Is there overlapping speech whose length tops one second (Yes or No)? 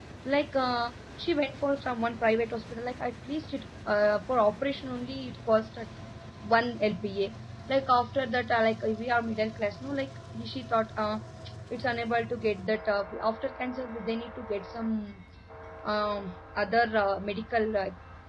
No